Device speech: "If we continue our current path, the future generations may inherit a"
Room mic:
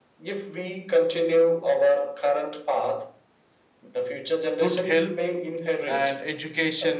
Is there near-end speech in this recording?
Yes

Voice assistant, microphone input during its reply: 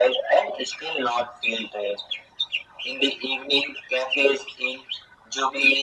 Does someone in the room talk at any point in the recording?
No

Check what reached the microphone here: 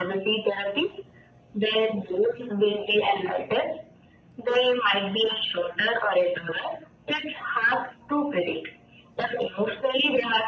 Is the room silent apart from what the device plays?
Yes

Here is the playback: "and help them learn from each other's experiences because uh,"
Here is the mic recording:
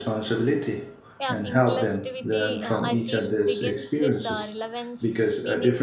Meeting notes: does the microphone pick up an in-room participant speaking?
Yes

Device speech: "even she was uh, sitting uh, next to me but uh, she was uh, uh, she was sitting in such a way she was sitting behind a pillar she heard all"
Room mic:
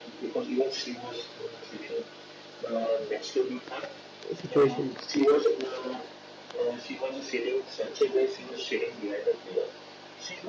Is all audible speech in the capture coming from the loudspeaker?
No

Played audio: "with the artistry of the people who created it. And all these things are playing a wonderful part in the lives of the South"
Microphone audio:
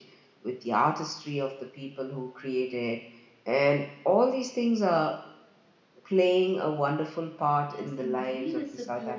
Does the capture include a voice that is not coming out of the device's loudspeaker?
Yes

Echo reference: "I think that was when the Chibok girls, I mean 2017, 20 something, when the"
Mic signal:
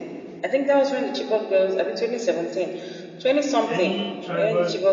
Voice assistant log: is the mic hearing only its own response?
No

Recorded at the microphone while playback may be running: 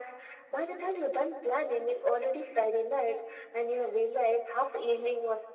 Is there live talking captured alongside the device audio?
No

